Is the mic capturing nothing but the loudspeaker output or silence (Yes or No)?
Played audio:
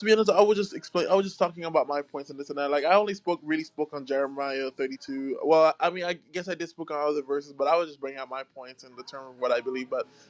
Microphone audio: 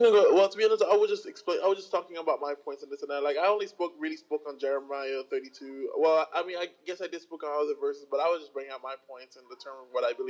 Yes